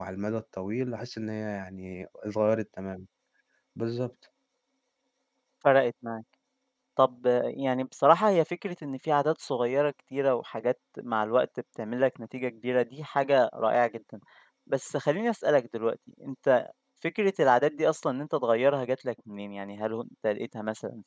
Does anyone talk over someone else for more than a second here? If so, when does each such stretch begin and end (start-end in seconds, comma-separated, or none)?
none